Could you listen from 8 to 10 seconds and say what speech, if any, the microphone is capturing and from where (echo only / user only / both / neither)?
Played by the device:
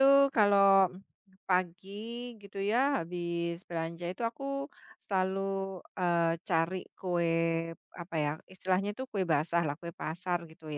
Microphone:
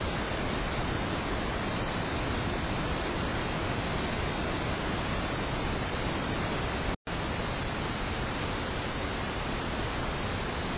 neither